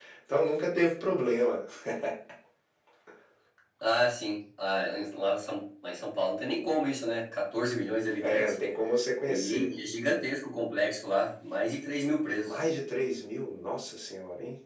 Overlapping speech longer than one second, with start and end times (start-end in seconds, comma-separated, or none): none